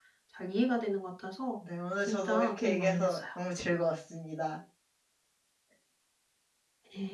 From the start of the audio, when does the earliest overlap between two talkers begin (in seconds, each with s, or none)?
2.0 s